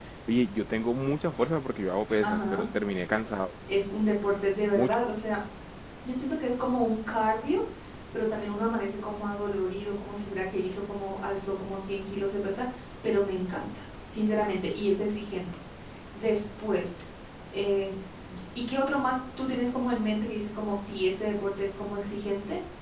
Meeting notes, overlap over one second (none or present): none